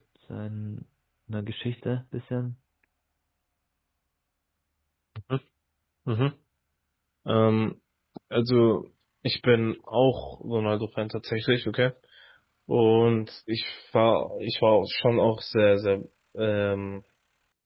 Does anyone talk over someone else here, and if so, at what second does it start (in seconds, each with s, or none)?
none